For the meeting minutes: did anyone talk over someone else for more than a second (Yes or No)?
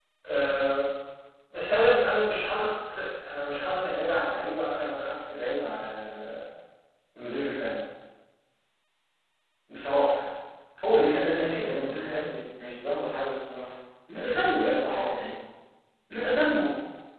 Yes